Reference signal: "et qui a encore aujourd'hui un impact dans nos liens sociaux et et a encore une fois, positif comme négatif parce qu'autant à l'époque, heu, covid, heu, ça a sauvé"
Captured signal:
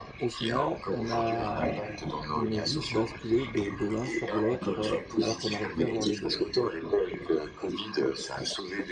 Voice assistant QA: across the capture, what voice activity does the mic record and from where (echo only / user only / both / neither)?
both